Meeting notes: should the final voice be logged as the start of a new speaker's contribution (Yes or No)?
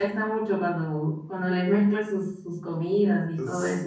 Yes